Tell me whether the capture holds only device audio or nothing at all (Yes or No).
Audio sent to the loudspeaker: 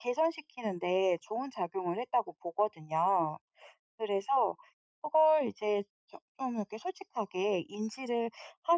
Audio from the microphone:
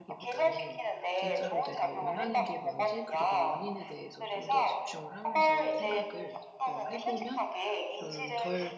No